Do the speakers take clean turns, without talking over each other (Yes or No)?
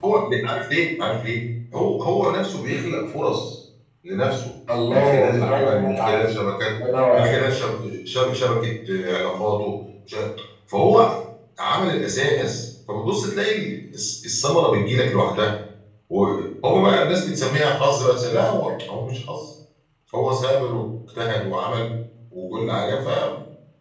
No